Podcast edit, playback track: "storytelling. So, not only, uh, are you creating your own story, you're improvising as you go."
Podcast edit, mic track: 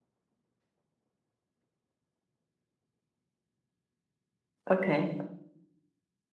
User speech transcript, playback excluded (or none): Okay.